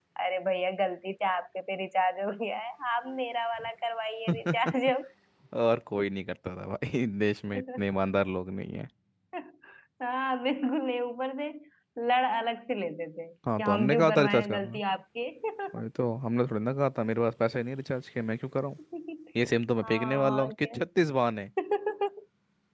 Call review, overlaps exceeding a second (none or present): present